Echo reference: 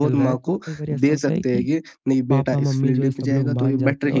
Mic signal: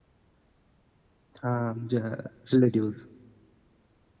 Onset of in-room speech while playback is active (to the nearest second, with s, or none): 1 s